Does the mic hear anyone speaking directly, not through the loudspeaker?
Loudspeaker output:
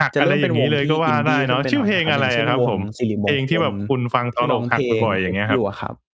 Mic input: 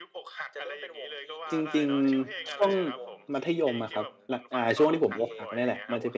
Yes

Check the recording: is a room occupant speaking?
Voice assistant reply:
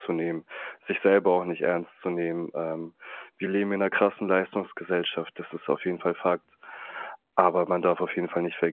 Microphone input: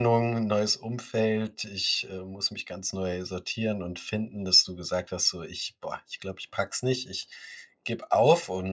Yes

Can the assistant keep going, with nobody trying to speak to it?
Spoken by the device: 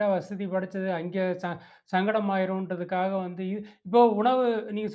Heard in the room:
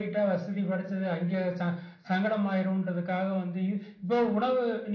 Yes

